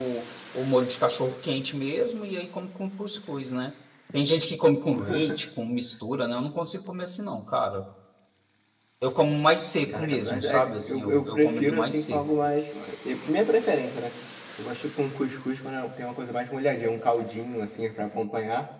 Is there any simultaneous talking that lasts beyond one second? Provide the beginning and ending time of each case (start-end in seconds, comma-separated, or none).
9.9-12.2